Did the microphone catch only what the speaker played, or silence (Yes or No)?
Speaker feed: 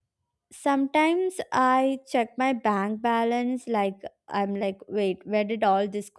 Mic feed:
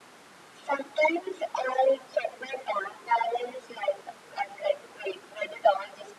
Yes